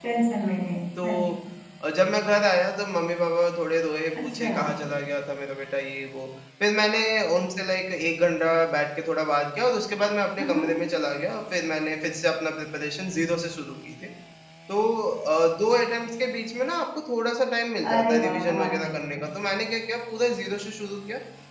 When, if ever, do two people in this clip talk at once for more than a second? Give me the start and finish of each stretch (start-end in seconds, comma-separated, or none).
17.9-19.2